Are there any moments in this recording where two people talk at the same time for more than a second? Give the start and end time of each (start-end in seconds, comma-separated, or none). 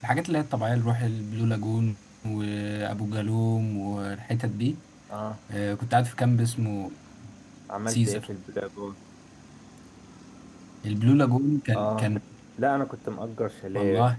none